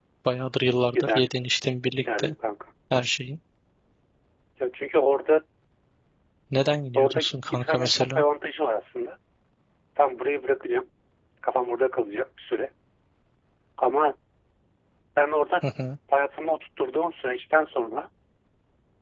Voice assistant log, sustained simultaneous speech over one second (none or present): present